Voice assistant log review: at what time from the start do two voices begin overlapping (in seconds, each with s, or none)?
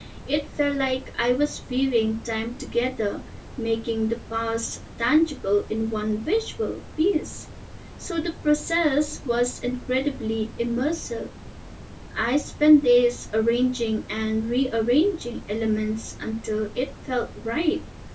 none